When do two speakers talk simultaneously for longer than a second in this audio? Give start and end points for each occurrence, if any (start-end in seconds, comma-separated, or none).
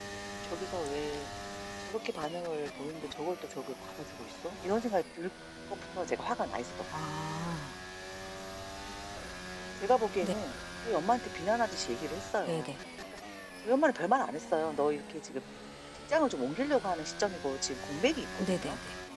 none